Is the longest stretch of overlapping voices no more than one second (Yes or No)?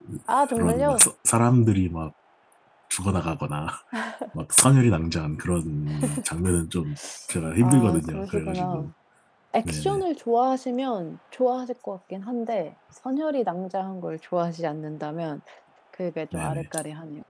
No